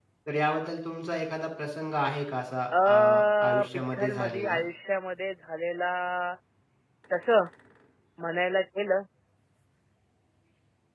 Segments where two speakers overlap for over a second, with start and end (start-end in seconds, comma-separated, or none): 2.8-4.6